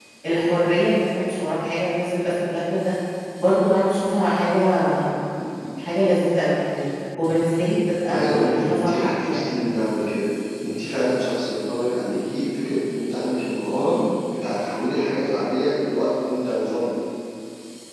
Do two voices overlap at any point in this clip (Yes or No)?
Yes